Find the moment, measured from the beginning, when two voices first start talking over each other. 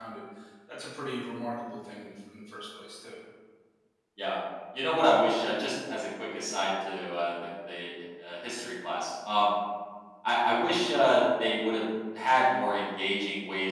none

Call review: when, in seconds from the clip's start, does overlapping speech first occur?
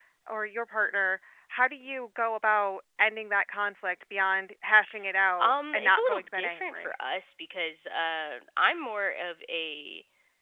5.4 s

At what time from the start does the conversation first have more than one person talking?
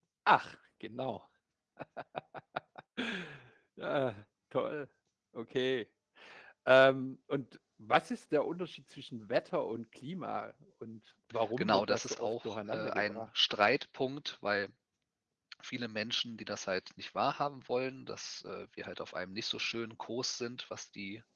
11.6 s

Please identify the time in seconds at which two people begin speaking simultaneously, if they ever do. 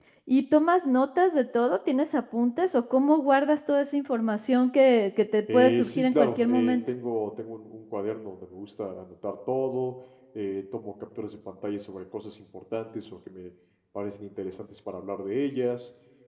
5.5 s

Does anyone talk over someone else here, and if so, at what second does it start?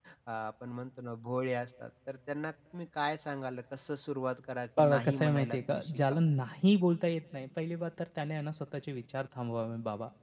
4.8 s

